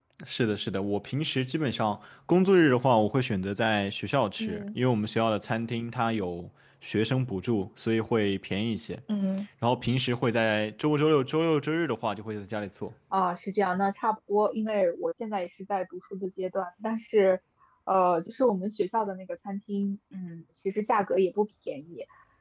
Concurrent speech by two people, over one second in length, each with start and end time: none

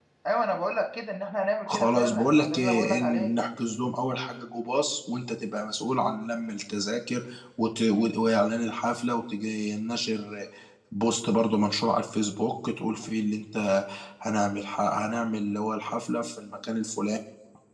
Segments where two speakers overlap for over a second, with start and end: 1.7-3.4

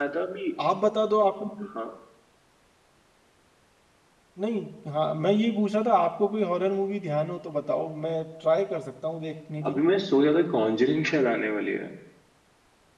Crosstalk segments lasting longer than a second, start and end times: none

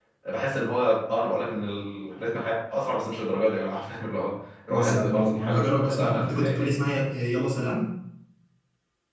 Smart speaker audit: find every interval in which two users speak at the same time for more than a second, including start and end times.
4.7-6.8

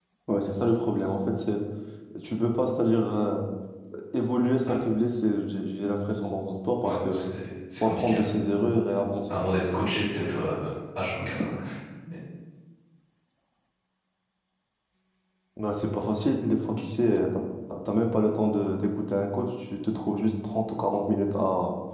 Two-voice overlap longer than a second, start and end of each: none

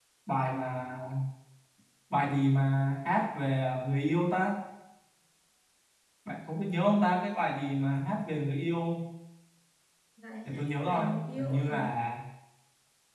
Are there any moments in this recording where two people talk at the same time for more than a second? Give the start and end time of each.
10.4-11.9

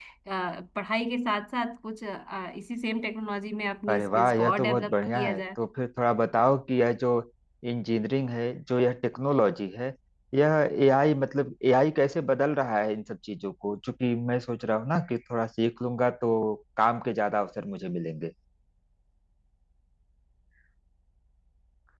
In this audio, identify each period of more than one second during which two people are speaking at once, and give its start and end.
3.9-5.3

